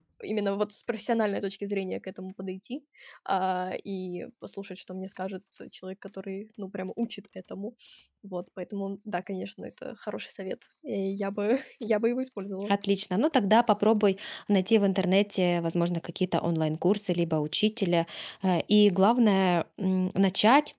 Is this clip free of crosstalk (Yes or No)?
Yes